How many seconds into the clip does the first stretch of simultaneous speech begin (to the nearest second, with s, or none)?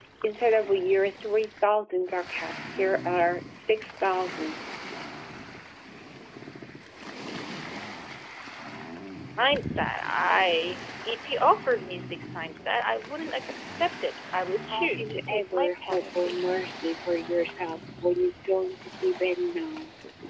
15 s